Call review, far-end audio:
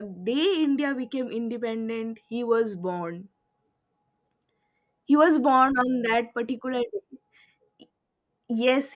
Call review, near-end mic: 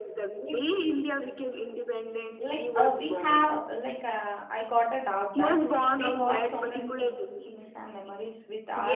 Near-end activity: present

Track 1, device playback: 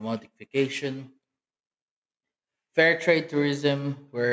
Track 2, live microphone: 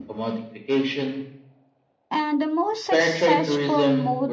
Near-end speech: present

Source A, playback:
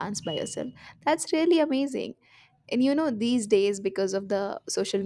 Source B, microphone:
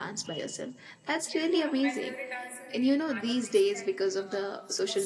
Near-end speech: present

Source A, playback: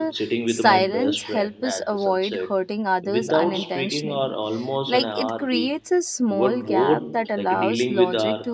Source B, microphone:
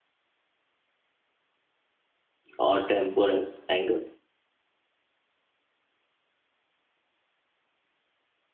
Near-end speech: present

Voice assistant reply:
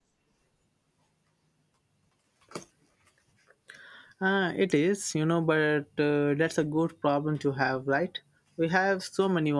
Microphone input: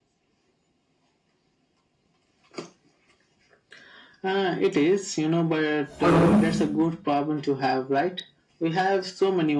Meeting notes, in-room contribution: present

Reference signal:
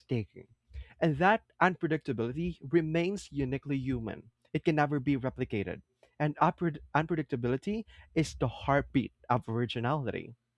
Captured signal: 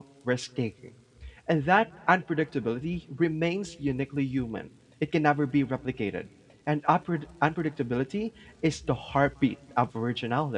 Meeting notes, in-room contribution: none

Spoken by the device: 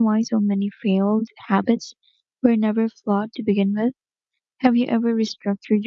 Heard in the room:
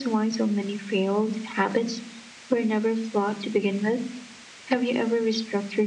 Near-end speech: none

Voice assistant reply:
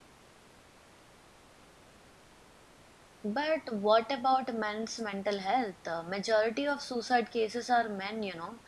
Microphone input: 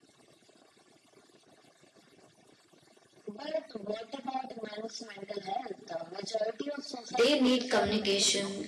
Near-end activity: present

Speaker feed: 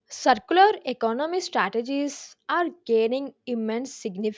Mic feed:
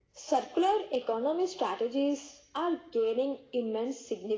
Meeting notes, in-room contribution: none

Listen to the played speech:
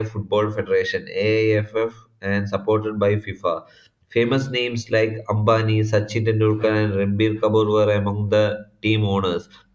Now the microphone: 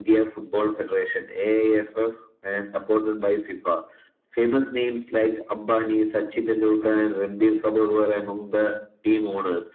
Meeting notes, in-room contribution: none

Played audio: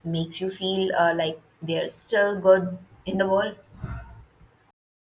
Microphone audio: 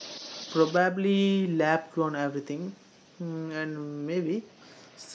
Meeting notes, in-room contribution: present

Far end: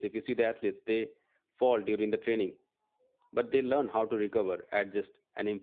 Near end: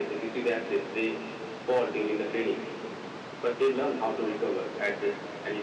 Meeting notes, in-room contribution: none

